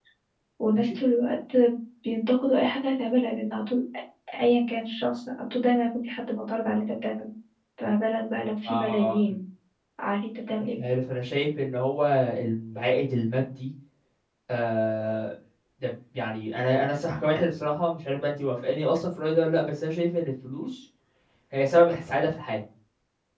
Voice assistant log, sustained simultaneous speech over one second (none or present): none